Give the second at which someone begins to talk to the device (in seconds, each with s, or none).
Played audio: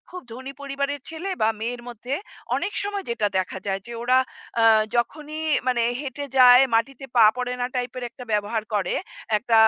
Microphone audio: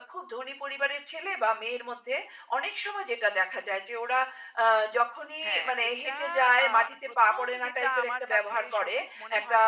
5.5 s